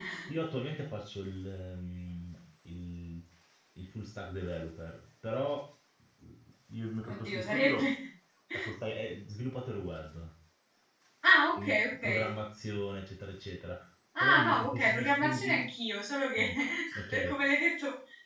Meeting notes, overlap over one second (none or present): present